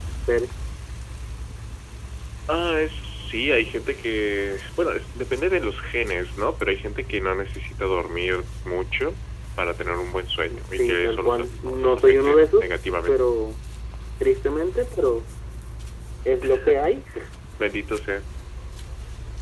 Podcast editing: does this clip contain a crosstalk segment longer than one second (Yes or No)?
Yes